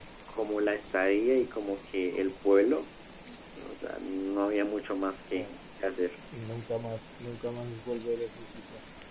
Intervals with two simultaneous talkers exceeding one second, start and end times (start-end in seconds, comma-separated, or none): none